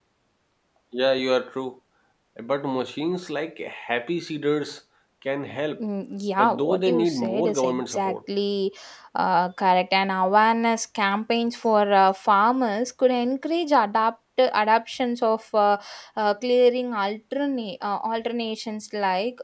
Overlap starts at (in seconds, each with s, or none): 6.4 s